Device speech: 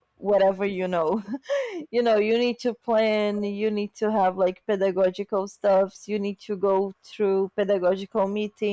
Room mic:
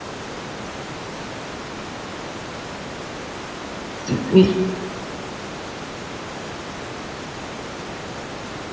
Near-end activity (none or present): present